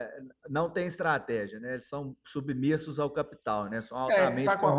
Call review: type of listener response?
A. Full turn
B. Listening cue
A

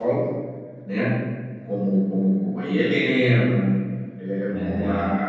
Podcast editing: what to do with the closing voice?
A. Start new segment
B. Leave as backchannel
B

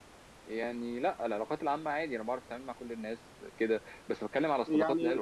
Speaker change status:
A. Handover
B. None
B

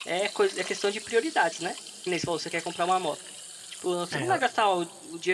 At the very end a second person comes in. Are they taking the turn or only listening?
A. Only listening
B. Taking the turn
A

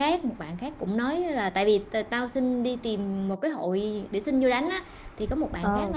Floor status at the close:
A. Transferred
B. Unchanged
B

